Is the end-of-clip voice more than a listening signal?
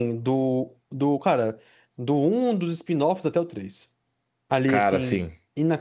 No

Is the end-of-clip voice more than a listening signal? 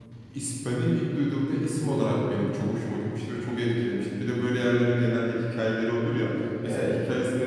No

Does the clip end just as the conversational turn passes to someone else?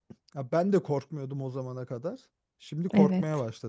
Yes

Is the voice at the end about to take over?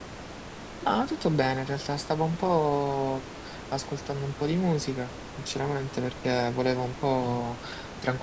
No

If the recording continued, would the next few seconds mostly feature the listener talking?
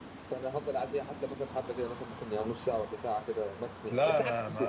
Yes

